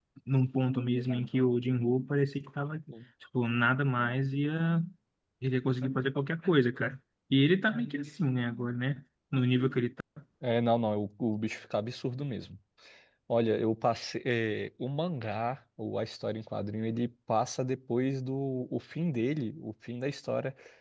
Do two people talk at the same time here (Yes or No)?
No